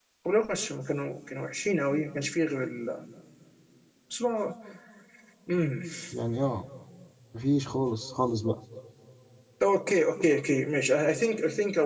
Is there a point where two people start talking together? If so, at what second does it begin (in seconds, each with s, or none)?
none